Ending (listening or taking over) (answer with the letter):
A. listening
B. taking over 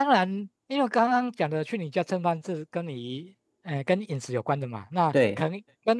A